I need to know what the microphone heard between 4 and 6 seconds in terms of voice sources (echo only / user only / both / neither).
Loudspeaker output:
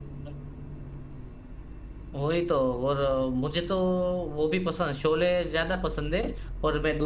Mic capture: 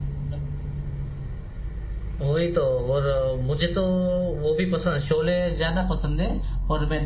echo only